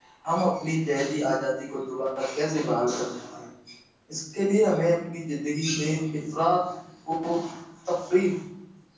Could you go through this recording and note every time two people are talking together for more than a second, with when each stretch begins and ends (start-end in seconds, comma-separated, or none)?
none